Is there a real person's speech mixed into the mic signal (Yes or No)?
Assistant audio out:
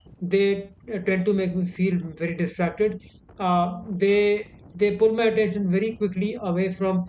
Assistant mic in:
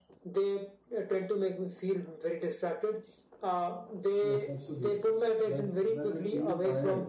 Yes